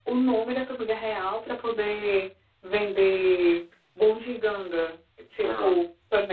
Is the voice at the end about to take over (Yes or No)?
No